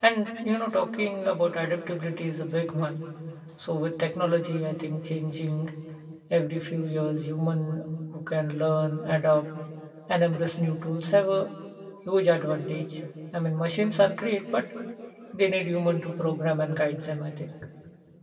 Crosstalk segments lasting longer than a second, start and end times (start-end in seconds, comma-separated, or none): none